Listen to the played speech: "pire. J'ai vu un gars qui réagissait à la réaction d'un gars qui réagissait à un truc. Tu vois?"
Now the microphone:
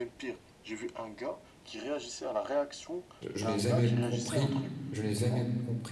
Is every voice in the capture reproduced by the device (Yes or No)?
No